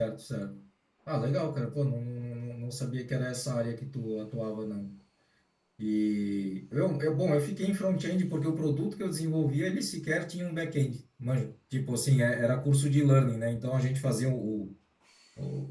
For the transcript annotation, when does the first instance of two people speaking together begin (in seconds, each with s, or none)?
none